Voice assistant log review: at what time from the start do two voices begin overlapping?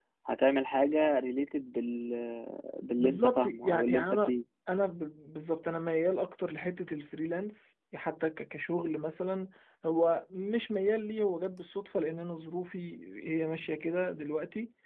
3.0 s

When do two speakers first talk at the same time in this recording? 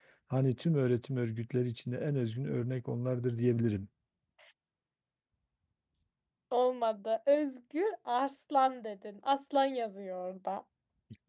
none

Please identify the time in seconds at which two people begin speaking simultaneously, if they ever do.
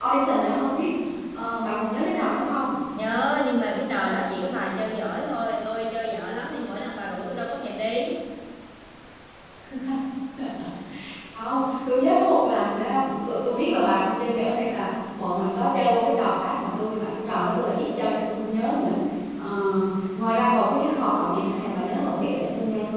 none

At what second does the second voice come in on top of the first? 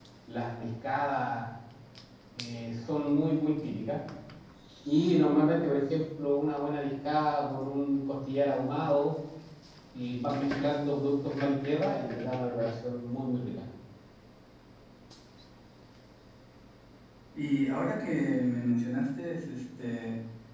none

